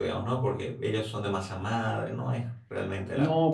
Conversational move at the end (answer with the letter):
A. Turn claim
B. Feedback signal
A